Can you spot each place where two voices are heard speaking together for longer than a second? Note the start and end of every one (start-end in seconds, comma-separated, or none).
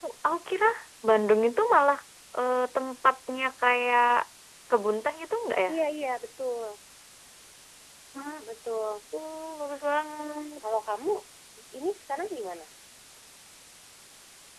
none